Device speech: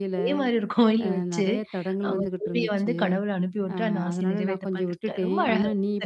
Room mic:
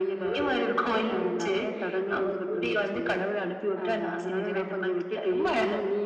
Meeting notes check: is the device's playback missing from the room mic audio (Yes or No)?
No